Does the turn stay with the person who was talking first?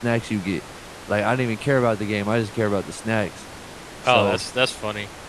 No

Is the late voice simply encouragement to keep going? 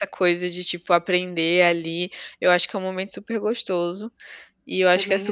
Yes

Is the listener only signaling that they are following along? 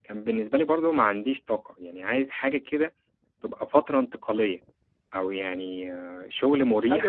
No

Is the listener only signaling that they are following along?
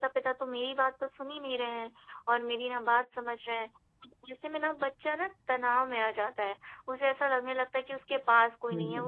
Yes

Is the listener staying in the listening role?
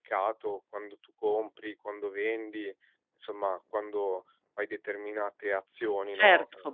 No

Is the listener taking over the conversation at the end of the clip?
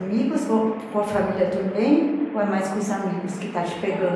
Yes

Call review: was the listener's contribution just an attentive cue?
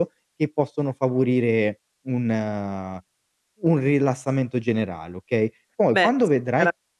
No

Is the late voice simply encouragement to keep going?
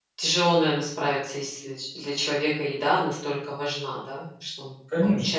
No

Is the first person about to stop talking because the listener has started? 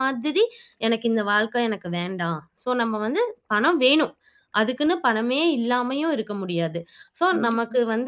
No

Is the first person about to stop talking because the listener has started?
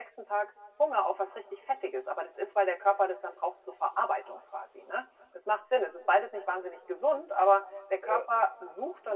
No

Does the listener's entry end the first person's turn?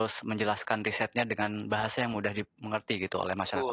Yes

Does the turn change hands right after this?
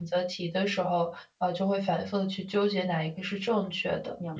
Yes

